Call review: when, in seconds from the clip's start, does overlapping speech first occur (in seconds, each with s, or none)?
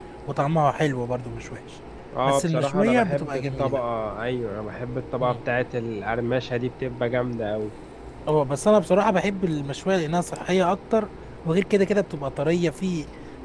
2.2 s